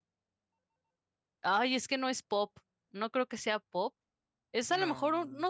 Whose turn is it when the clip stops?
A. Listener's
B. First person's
B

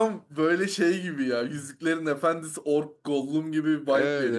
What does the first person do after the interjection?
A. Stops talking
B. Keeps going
A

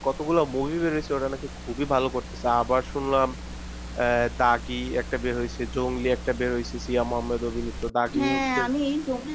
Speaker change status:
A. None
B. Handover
B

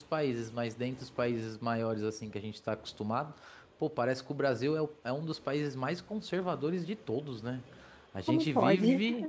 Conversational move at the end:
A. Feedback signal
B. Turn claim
A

